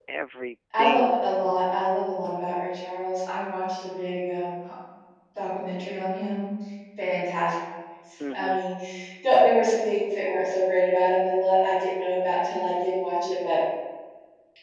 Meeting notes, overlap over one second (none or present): none